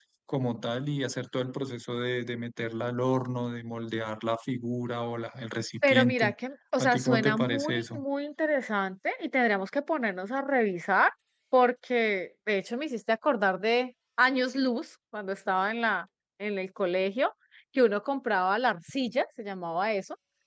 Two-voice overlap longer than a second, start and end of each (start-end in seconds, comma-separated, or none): 6.8-8.0